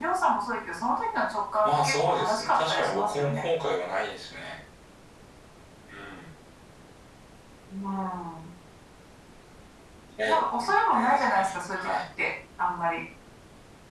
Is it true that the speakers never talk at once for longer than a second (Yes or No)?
No